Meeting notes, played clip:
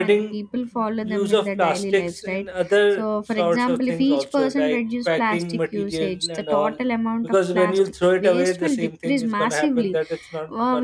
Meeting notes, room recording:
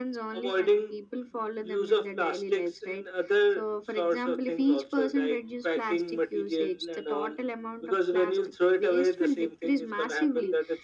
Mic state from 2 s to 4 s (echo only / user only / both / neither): echo only